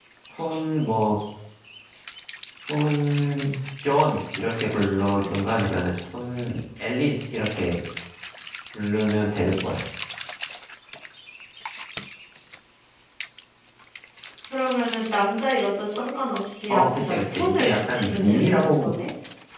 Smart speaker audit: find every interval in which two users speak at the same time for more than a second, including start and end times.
16.7-18.9

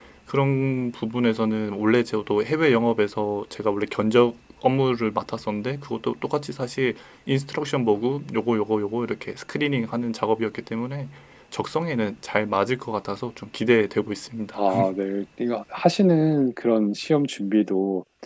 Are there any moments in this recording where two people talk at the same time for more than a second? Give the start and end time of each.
none

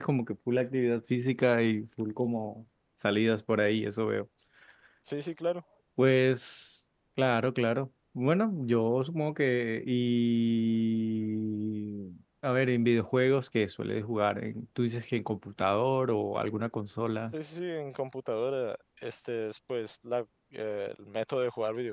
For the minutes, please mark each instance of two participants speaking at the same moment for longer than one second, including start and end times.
none

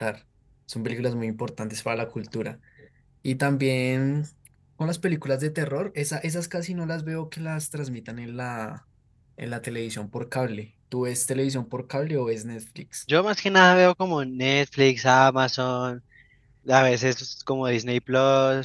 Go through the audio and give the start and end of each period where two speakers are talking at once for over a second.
none

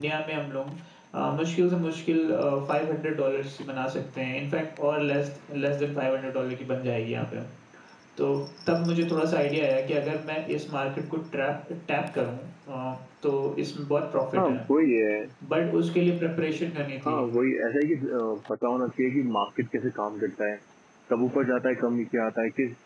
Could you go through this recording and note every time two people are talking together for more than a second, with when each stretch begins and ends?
none

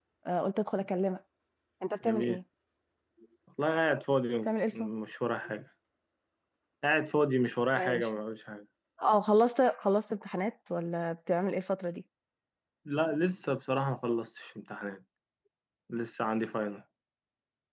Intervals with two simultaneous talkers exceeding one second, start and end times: none

